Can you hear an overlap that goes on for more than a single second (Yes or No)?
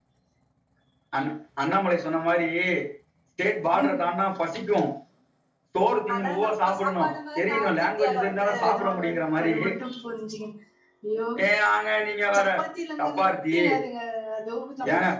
Yes